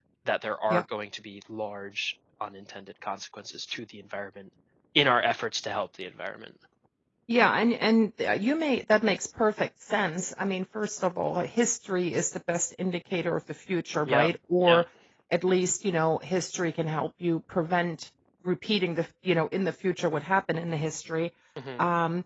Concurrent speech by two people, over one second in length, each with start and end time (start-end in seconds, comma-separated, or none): none